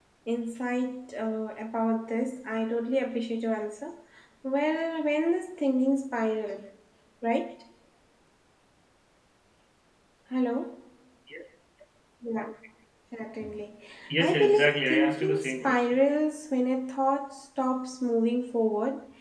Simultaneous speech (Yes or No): Yes